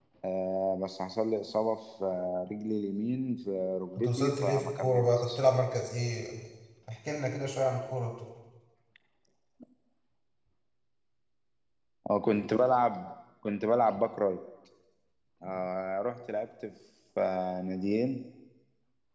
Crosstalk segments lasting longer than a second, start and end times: 4.0-5.4

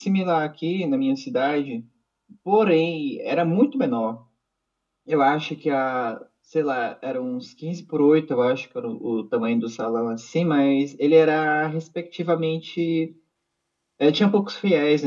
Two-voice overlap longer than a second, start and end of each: none

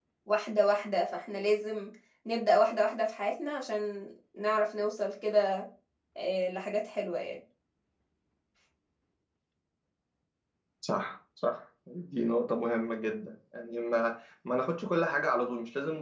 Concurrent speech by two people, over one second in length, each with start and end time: none

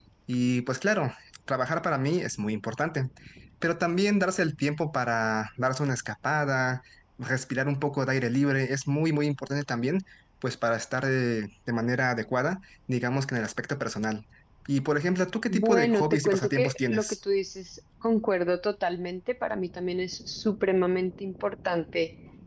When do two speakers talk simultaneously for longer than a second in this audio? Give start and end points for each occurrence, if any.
15.5-17.1

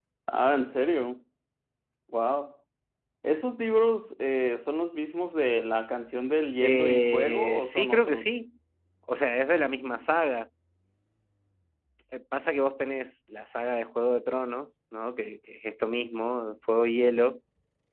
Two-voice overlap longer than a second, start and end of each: 6.6-8.3

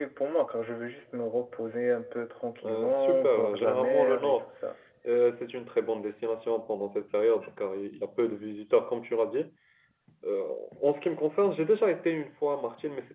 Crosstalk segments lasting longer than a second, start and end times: 2.6-4.4

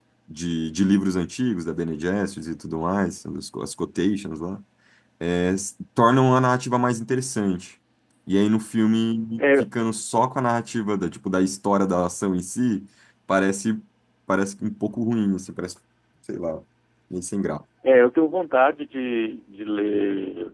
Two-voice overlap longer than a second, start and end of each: none

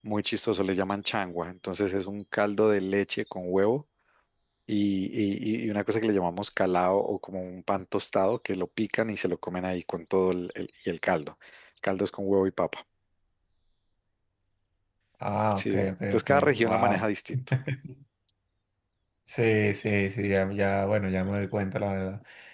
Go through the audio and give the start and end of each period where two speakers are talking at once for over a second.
15.5-17.0

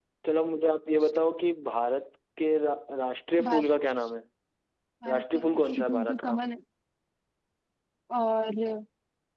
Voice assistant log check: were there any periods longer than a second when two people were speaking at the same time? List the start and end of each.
5.1-6.3

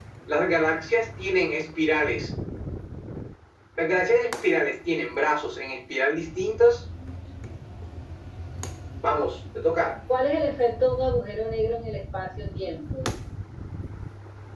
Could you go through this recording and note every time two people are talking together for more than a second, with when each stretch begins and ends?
none

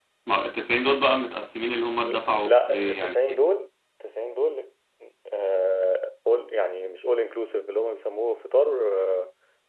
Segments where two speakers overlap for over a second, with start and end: 2.0-3.4

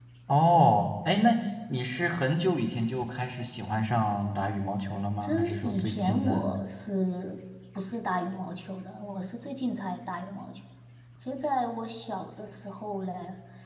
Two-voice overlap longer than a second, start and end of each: 5.2-6.5

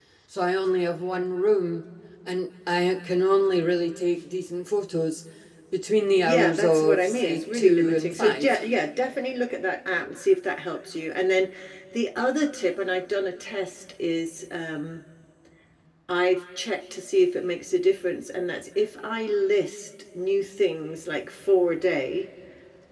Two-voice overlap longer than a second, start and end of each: 6.2-8.6

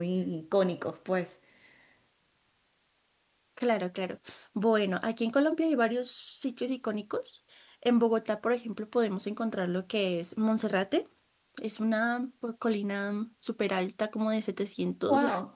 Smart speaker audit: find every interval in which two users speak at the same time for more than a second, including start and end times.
none

